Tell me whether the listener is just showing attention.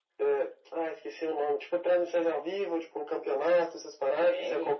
No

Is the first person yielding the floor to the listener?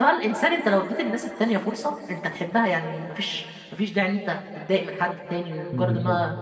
No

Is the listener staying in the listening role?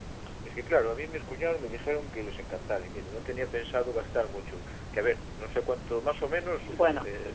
Yes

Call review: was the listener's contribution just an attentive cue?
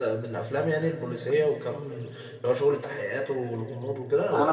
No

